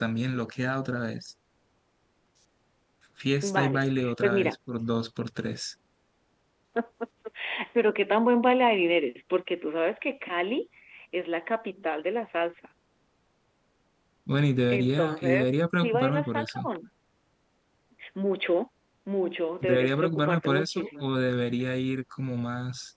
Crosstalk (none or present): present